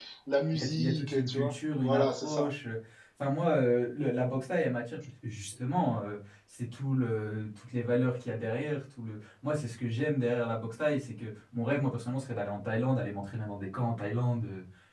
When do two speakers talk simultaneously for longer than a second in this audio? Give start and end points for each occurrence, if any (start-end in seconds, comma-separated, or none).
0.5-2.5